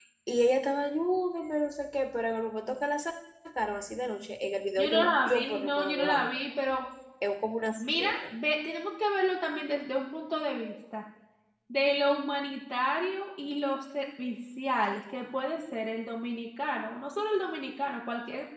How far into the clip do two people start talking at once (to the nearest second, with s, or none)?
5 s